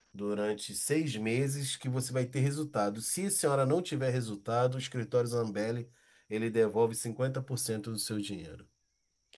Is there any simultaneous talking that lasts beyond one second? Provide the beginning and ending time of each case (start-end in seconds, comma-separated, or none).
none